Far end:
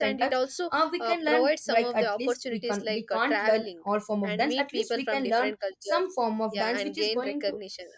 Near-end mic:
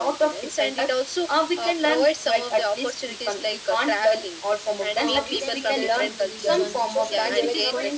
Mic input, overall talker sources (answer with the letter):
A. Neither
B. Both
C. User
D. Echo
B